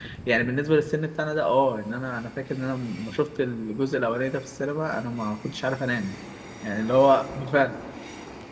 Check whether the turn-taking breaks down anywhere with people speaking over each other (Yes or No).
No